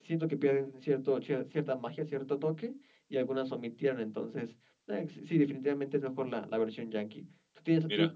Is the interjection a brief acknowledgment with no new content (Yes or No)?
Yes